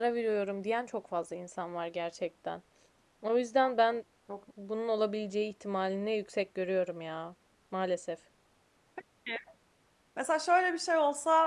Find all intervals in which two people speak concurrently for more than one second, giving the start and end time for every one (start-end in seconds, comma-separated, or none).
none